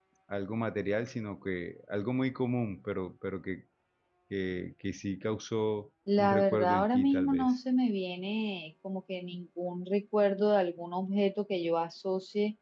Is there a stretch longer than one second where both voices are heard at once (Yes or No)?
Yes